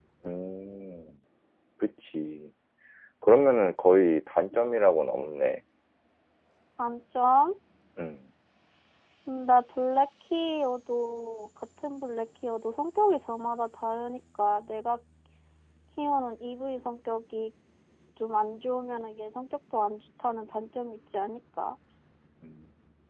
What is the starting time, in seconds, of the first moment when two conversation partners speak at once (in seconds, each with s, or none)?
none